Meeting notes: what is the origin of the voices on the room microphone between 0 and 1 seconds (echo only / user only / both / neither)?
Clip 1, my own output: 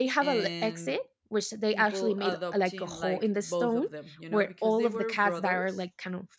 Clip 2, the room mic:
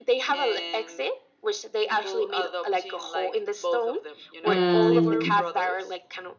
echo only